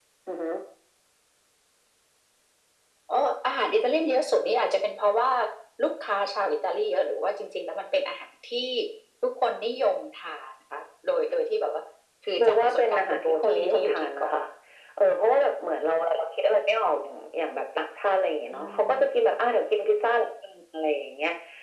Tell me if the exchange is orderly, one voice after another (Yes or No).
No